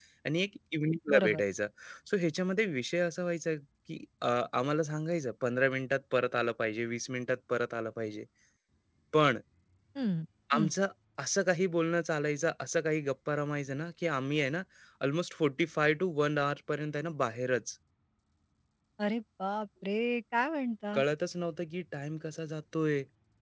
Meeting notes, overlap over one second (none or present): none